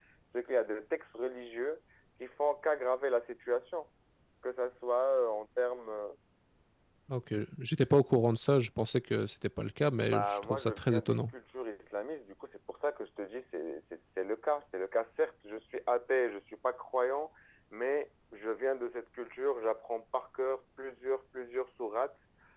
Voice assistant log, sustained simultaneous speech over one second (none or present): present